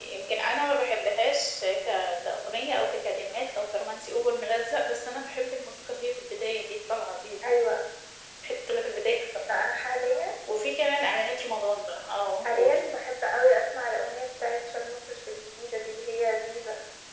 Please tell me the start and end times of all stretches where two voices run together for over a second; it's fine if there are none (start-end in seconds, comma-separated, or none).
none